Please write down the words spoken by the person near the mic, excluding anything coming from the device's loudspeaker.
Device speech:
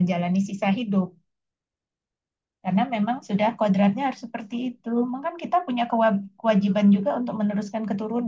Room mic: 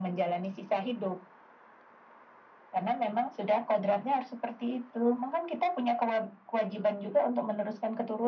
none

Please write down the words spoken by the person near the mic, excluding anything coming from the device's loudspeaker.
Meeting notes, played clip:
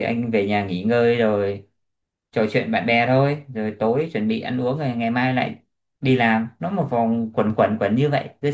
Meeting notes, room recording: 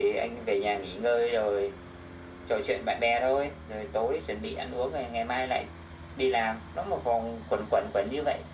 none

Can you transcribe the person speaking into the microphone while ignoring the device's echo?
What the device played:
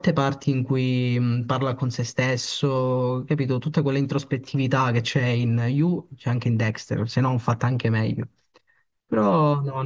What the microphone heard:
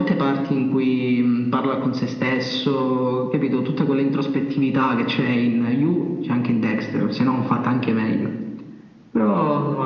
none

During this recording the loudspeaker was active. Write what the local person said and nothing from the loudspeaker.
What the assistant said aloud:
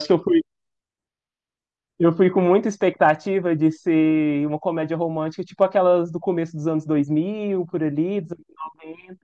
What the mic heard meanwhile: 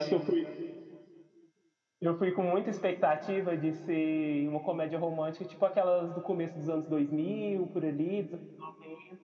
none

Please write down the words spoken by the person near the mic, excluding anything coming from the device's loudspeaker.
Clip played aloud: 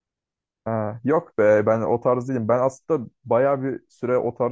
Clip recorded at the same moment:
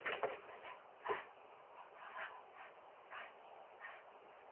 none

